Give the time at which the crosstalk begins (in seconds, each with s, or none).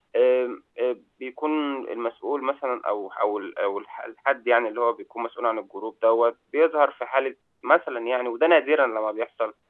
none